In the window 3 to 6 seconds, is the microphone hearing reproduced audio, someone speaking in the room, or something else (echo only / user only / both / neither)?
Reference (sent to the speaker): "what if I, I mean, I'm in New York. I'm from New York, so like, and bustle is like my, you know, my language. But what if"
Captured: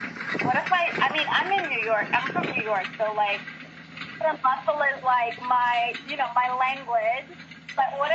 echo only